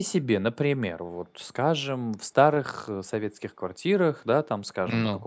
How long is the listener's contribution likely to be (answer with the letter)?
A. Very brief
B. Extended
A